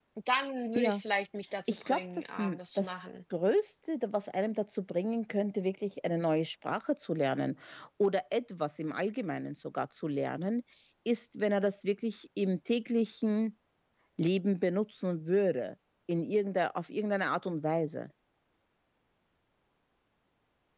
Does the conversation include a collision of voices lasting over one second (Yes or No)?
Yes